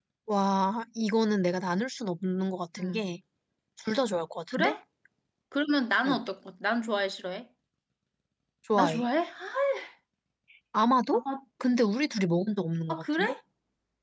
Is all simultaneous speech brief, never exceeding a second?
Yes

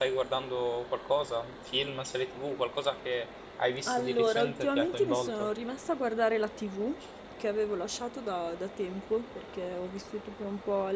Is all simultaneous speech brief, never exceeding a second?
No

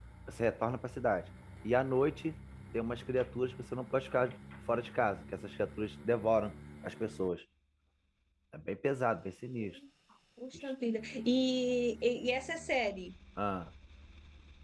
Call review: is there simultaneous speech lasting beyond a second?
No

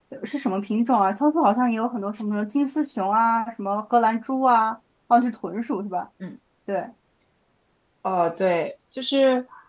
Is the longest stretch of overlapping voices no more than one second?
Yes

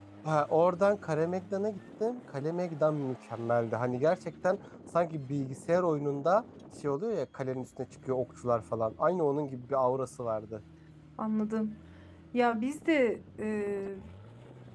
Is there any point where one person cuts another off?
No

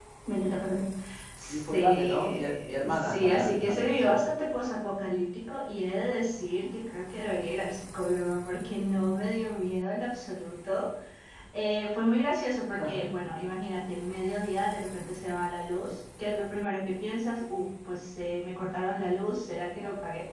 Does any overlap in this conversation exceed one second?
Yes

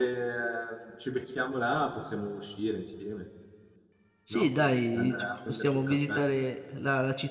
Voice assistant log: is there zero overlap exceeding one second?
No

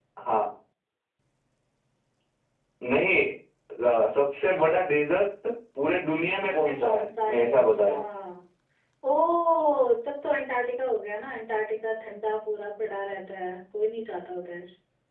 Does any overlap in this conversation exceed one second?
Yes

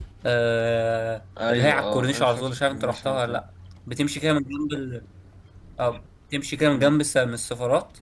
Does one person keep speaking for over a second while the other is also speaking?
Yes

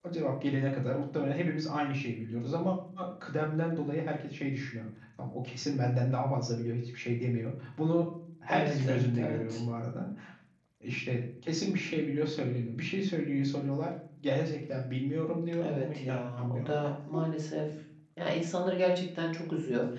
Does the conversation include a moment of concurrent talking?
Yes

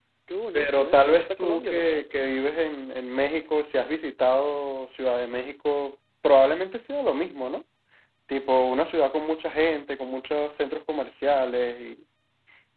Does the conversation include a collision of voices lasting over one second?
Yes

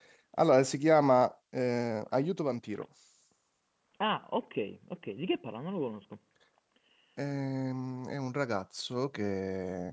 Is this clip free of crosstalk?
Yes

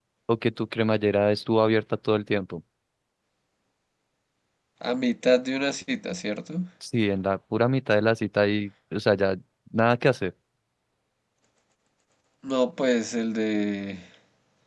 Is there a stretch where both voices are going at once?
No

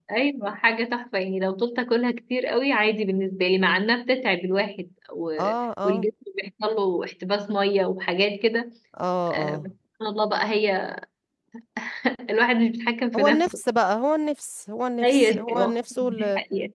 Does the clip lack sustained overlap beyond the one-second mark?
No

